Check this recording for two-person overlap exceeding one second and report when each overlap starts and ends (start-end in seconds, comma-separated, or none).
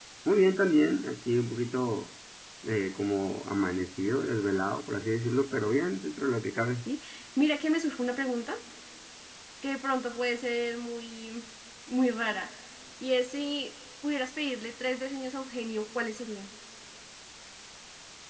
none